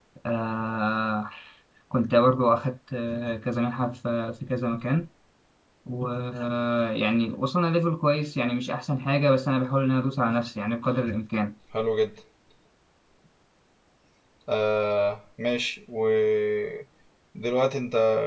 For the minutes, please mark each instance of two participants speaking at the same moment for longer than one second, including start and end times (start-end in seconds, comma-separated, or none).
none